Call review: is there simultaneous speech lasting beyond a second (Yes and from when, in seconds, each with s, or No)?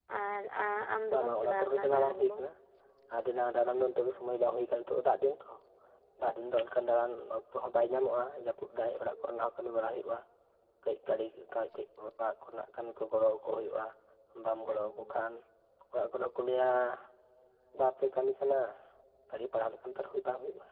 Yes, from 1.1 s